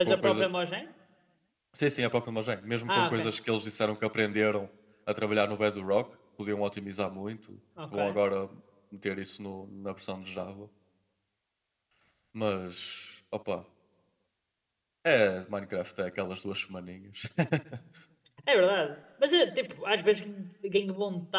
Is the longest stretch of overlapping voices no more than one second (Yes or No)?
Yes